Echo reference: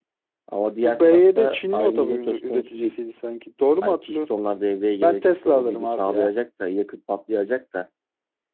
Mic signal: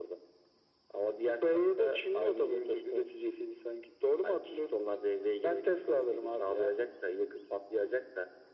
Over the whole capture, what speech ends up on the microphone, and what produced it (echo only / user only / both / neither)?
echo only